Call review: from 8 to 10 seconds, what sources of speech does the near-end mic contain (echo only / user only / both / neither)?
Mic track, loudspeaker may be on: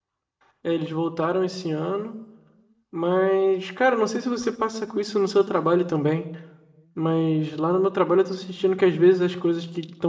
user only